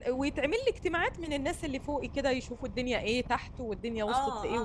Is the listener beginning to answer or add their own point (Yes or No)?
Yes